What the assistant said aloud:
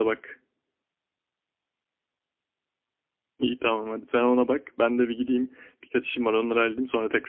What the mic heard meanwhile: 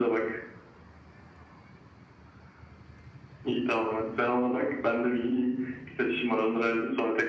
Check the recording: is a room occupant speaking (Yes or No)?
No